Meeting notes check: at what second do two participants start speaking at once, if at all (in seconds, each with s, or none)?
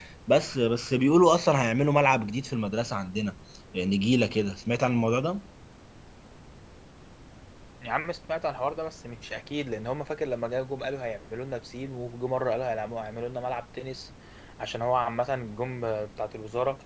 none